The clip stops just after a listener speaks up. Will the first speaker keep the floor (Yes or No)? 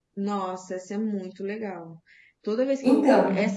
Yes